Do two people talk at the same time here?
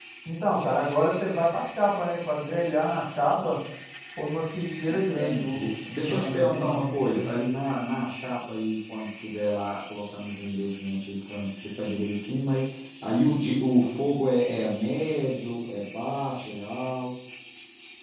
Yes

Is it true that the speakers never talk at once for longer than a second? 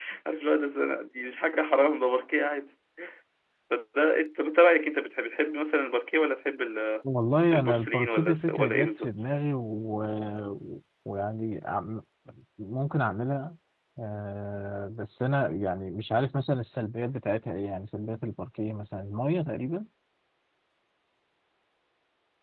No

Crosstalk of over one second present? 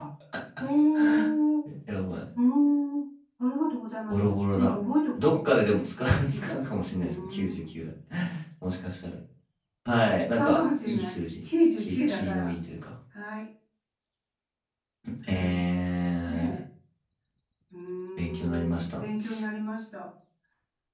Yes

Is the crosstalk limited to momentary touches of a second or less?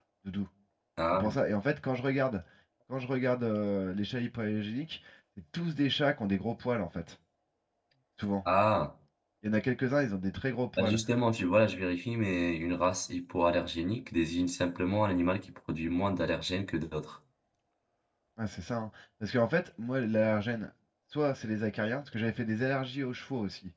Yes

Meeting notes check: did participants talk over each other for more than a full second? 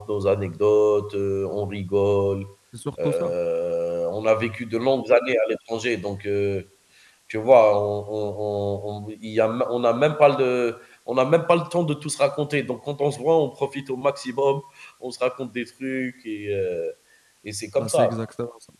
No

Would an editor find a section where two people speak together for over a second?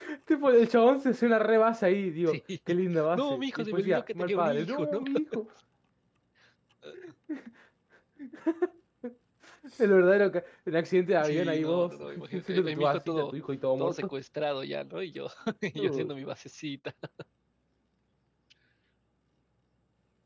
Yes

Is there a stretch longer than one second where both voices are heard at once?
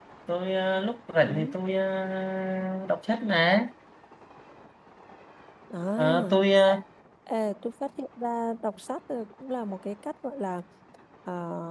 No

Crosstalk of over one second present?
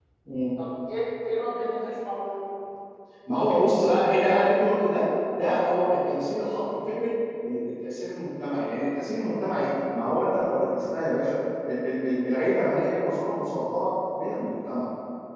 No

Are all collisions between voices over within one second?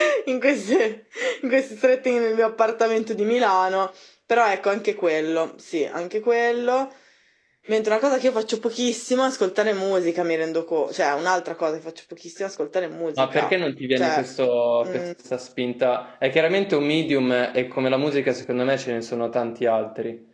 Yes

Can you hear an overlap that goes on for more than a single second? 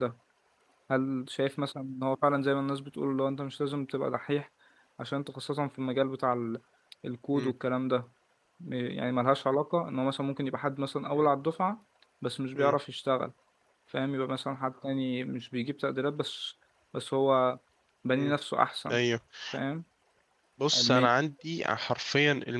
No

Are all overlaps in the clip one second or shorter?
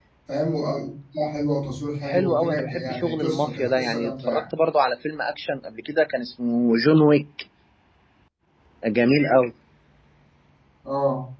No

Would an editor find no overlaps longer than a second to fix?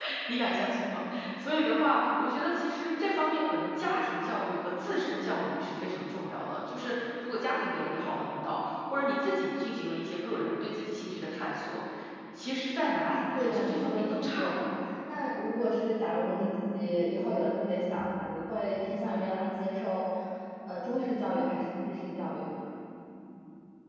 No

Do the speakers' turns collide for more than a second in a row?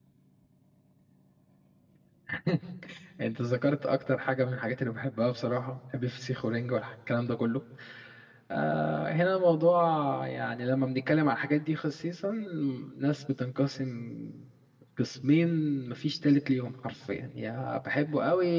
No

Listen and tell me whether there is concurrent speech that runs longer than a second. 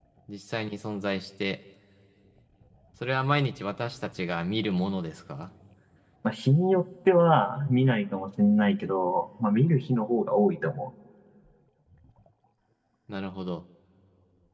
No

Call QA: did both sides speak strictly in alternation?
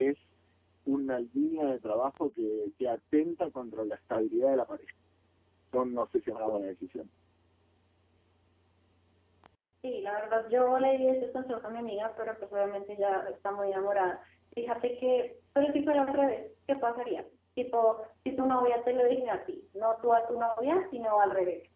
Yes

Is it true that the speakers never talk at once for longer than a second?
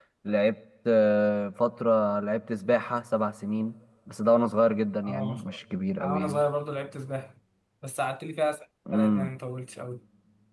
Yes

